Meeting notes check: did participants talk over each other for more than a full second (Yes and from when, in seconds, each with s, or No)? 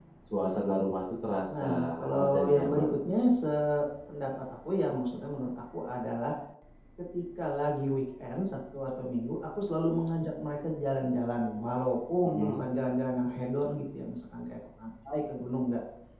Yes, from 1.5 s